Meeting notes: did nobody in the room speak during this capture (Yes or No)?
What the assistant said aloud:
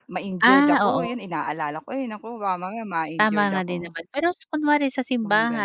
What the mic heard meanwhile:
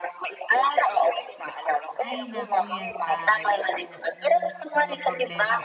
No